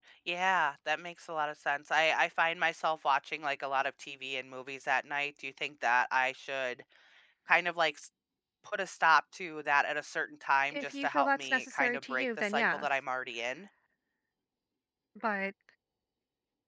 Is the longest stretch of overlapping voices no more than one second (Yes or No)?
No